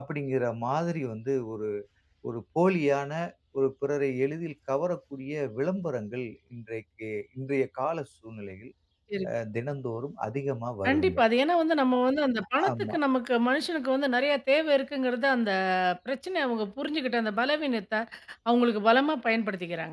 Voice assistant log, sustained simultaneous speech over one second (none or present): none